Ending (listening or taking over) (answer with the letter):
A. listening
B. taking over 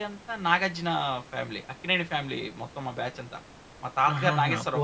B